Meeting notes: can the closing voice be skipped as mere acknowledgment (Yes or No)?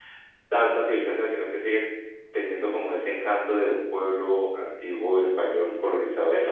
No